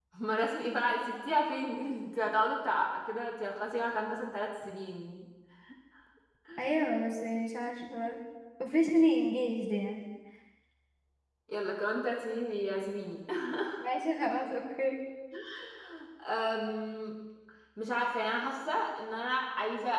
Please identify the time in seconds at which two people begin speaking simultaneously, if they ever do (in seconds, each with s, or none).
none